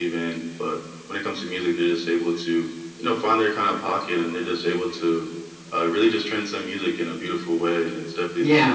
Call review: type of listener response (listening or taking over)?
taking over